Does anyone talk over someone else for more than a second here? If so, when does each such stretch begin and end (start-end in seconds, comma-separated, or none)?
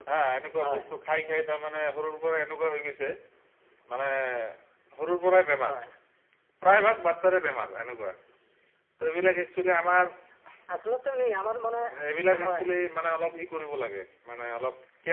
none